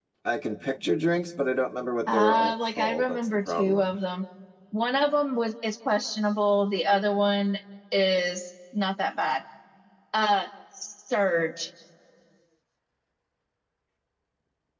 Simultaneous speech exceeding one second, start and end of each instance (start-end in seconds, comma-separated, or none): 2.1-4.0